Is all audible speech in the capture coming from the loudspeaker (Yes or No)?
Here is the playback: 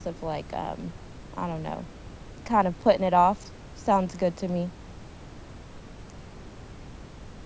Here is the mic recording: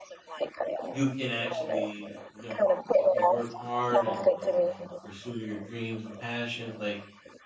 No